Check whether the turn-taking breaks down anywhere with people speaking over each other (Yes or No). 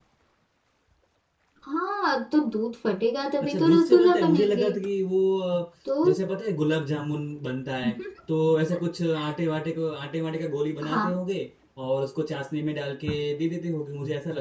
Yes